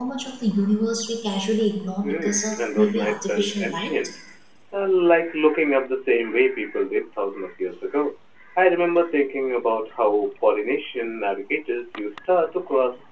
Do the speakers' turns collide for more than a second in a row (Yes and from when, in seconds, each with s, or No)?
Yes, from 2.0 s